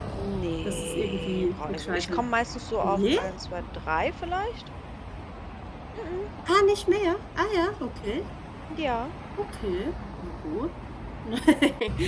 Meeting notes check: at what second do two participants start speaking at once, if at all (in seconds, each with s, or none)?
0.7 s